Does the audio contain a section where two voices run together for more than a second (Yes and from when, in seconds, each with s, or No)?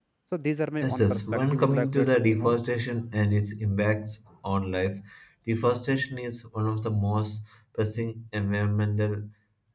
Yes, from 0.8 s